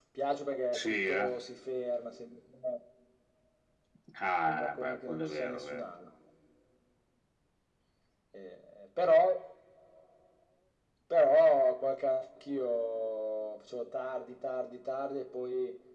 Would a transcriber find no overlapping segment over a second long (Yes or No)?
No